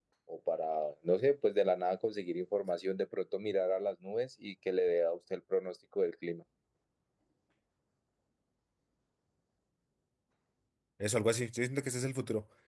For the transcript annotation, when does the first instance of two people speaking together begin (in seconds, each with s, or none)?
none